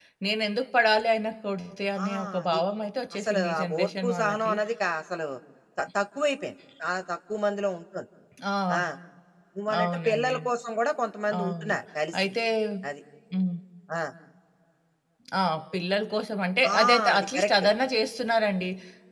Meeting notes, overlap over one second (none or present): present